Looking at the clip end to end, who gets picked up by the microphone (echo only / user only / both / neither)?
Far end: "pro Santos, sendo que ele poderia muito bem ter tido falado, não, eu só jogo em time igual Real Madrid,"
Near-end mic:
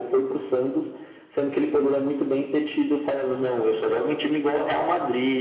echo only